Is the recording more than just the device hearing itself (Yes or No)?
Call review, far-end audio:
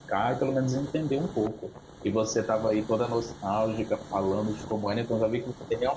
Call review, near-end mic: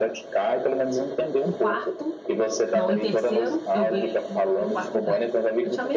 Yes